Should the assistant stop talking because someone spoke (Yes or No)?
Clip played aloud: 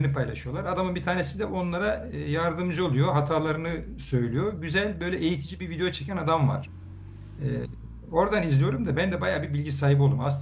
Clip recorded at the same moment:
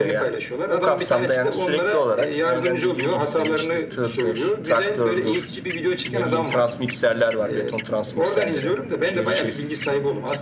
Yes